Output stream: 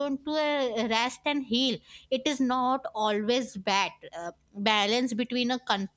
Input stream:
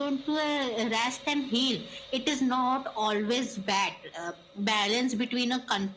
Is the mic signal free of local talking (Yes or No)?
Yes